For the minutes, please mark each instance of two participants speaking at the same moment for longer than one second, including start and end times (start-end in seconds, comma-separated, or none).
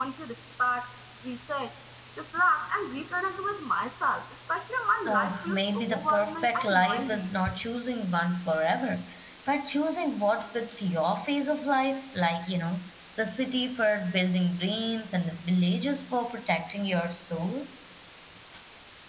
5.1-7.2